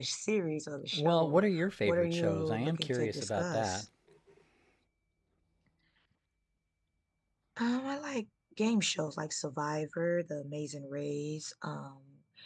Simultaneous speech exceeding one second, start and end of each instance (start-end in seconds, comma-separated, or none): 0.9-3.8